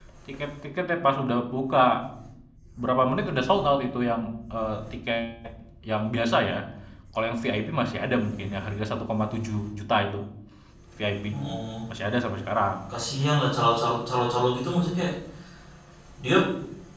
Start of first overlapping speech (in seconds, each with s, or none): none